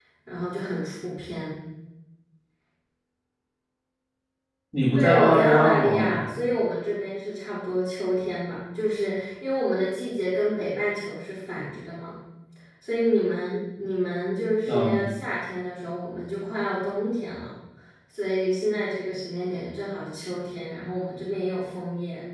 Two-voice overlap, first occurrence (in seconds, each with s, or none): 5.0 s